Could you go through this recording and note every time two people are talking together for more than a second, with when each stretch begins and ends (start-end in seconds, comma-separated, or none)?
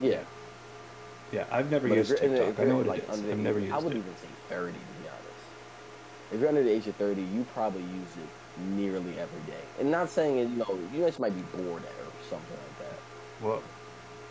1.8-4.0